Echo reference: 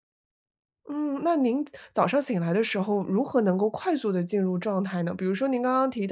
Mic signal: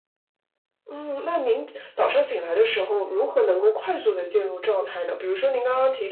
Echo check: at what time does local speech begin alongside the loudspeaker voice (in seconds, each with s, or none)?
none